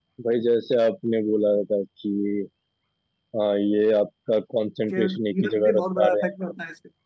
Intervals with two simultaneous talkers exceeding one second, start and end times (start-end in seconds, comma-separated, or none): 4.9-6.3